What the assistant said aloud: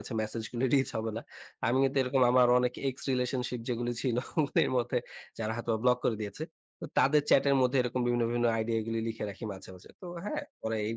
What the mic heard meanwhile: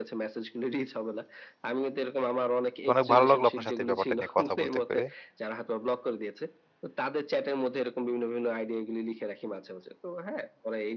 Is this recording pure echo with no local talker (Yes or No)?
No